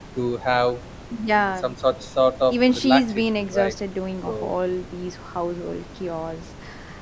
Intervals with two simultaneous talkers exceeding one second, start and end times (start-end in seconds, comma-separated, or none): 2.5-3.7